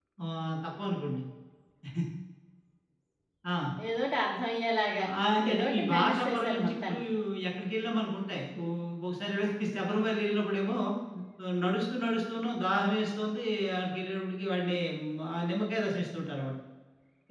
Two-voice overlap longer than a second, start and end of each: 5.5-7.0

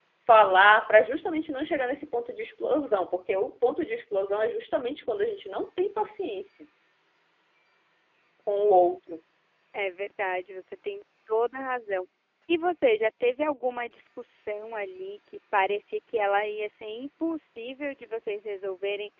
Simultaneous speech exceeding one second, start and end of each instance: none

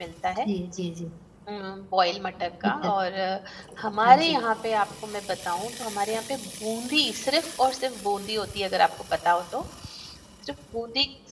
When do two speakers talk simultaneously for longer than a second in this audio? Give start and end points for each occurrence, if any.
none

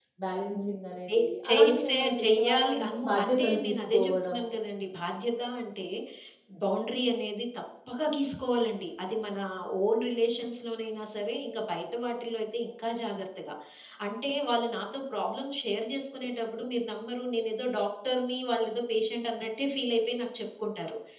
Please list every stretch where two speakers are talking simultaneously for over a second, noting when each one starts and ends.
1.6-4.5

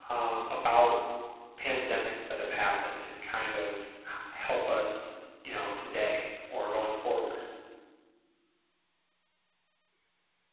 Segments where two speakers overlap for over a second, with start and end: none

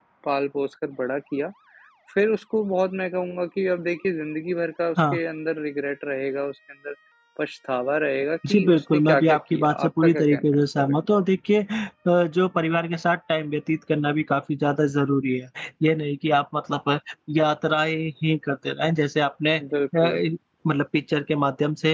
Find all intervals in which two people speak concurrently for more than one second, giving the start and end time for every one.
8.5-11.2

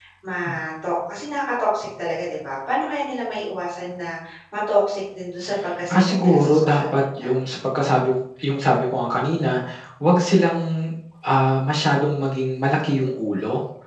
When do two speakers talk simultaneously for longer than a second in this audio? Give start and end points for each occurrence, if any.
5.9-7.3

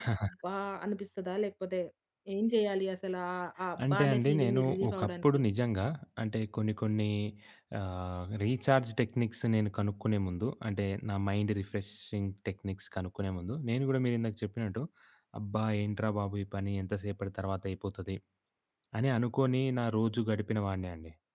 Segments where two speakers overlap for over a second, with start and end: 3.9-5.4

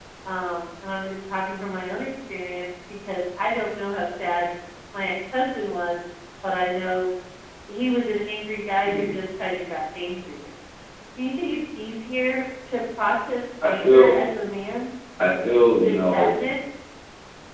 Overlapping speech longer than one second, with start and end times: none

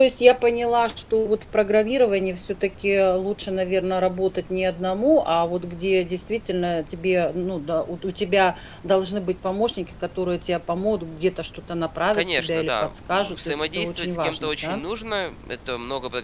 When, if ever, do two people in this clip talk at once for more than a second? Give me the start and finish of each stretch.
12.1-14.8

